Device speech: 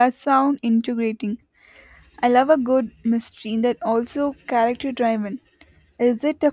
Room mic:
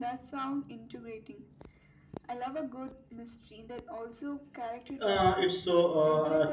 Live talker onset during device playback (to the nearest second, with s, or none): 5 s